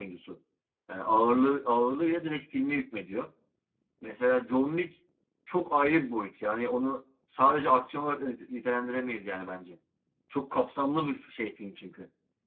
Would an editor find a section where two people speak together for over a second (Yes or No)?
No